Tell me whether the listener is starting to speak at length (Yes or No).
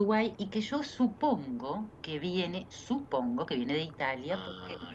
No